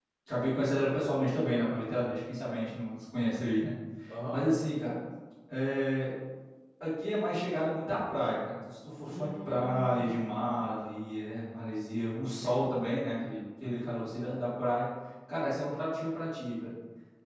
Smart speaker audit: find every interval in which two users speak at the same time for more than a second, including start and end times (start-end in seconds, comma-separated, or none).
9.0-10.6